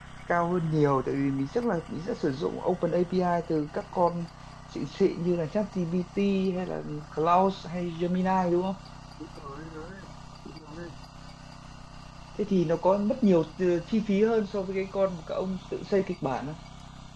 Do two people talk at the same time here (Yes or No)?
No